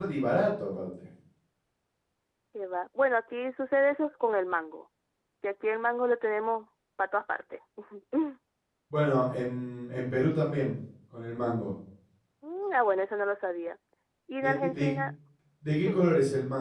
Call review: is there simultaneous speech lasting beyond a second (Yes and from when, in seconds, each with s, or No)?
No